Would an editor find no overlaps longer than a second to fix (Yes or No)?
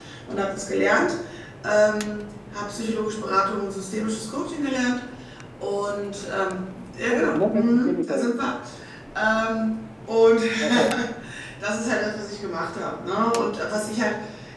No